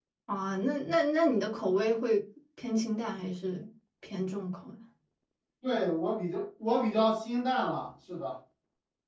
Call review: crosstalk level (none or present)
none